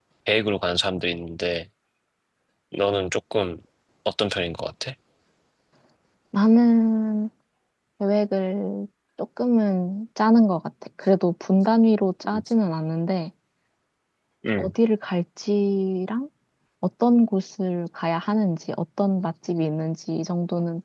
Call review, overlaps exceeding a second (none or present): none